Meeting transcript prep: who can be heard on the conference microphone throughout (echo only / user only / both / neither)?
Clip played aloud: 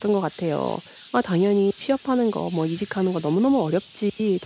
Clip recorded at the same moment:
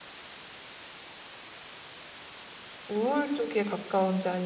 user only